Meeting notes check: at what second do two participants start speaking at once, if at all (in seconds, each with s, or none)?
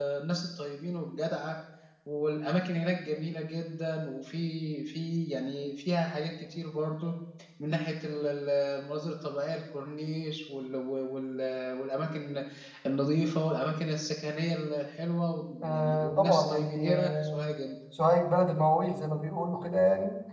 15.6 s